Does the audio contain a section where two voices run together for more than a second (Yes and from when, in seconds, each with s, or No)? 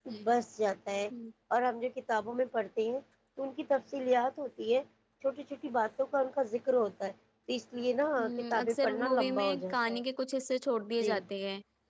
Yes, from 8.2 s